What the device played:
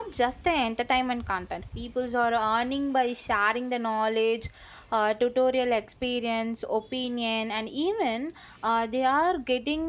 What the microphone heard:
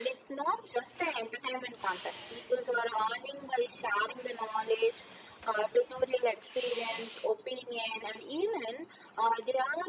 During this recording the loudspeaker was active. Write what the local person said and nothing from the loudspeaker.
none

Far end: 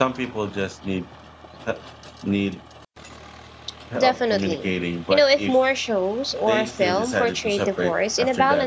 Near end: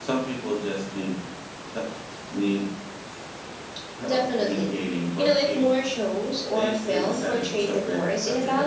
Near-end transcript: none

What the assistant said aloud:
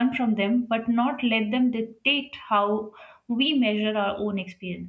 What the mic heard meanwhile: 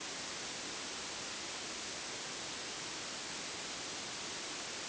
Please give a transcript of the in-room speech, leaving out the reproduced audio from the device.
none

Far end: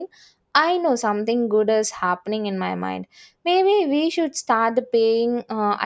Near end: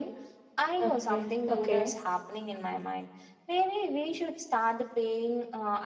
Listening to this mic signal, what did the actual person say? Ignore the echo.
Okay. Okay.

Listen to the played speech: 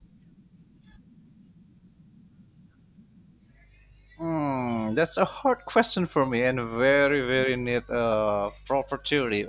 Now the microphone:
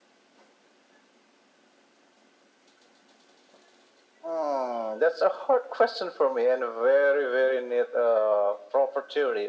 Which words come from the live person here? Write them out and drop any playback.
none

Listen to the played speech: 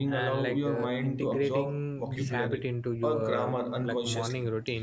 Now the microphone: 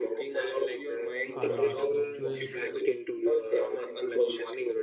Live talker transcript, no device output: are lost during

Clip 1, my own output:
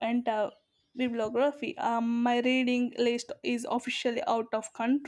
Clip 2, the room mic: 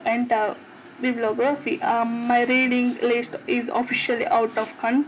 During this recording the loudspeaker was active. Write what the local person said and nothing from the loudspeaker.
none

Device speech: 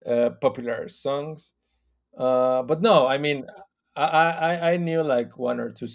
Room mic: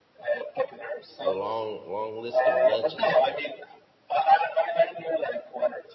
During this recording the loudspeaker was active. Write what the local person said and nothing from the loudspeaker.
a long long list of legends there.

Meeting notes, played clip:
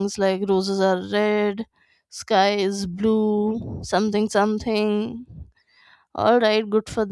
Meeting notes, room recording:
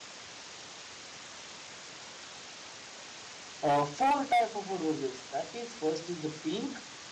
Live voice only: uh, four type of uh, roses that is first is the pink

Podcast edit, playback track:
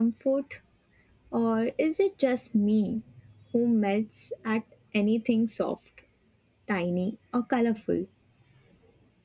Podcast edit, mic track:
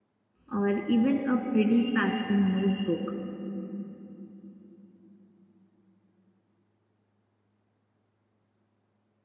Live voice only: or even a pretty pastel notebook,

